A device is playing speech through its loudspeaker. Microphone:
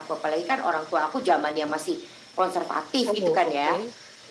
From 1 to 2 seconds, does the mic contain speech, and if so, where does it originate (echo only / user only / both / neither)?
echo only